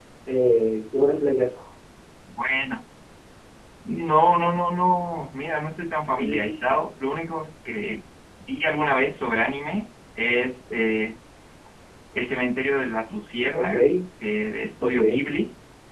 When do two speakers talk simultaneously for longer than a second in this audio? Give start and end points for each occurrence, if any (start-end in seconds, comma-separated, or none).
none